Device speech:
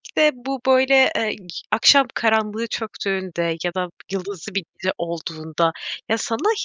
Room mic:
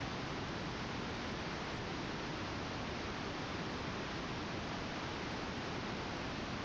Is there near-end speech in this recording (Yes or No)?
No